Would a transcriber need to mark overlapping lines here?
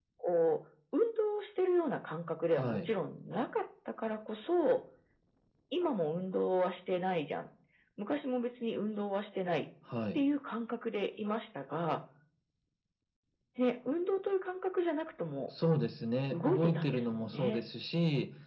Yes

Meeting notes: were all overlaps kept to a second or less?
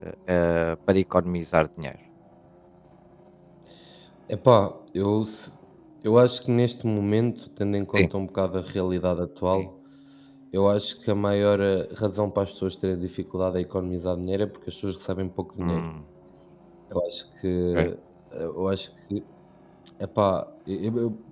Yes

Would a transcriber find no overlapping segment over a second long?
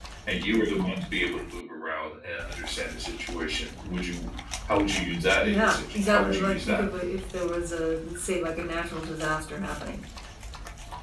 No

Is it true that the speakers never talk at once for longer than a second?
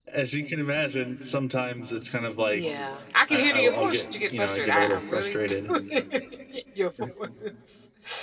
No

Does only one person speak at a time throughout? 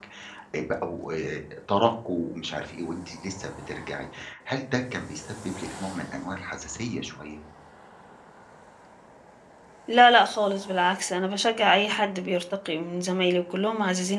Yes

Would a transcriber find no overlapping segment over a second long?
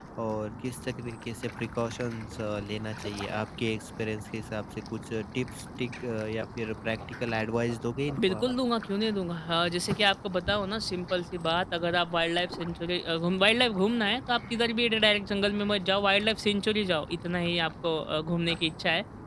Yes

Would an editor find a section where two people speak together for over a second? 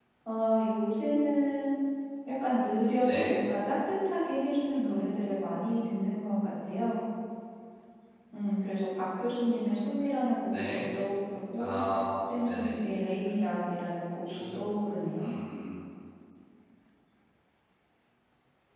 No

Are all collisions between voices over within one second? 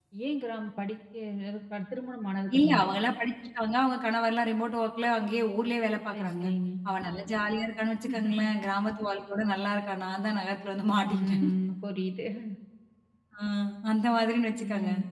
Yes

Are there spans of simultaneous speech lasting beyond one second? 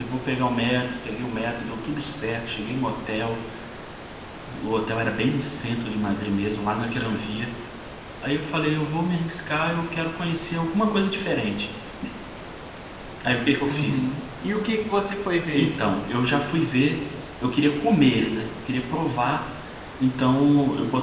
No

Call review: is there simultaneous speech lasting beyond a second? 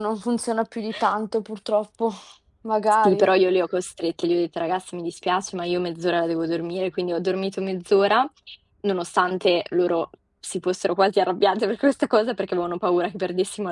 No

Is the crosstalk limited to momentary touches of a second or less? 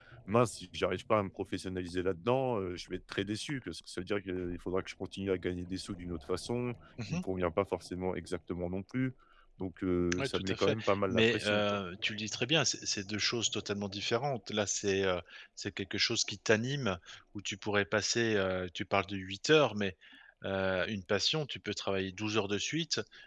No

